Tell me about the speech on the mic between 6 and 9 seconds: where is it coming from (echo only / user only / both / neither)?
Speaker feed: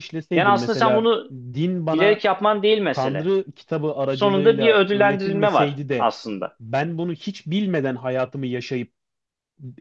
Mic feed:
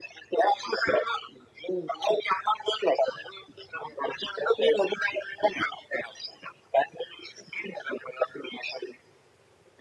echo only